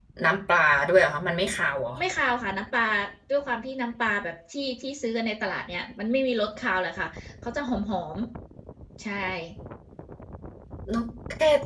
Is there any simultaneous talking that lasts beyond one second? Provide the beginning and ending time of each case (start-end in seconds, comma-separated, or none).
none